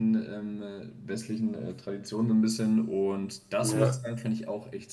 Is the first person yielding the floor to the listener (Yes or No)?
No